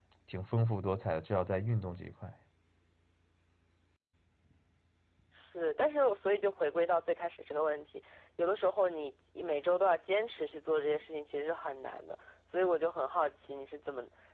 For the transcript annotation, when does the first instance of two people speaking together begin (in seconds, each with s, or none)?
none